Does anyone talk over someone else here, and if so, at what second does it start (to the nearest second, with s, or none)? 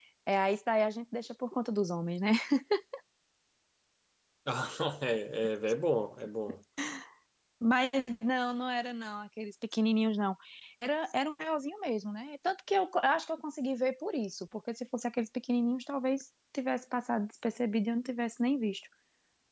none